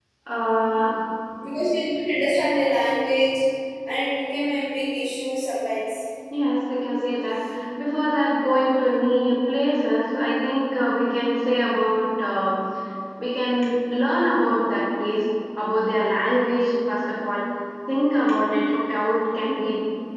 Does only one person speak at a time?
Yes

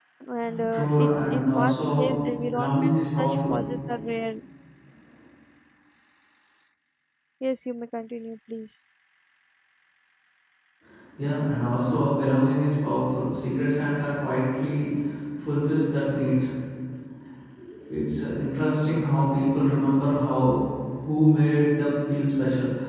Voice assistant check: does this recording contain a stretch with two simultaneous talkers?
Yes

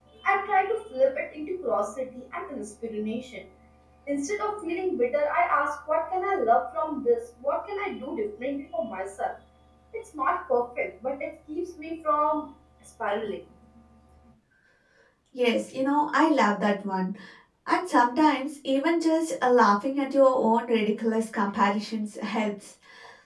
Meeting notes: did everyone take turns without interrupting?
Yes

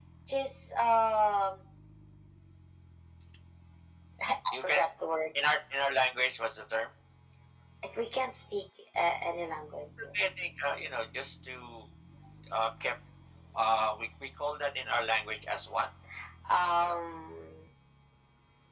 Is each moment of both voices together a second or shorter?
Yes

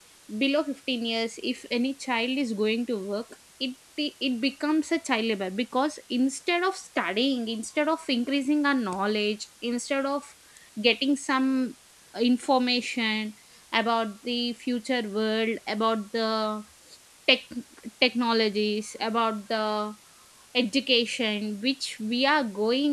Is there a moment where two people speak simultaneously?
No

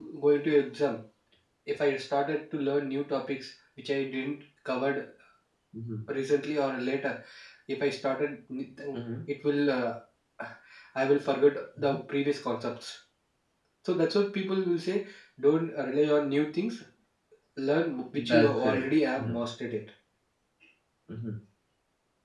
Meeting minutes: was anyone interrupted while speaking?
Yes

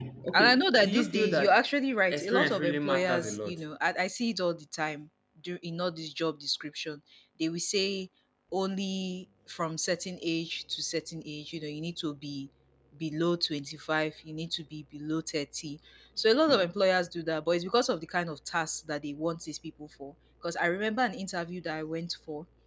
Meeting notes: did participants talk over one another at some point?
Yes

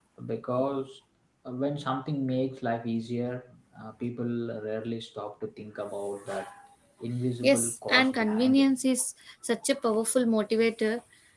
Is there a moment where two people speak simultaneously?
Yes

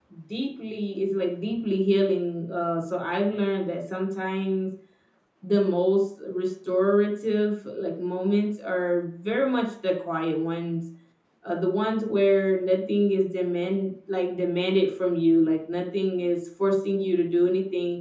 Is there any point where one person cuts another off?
No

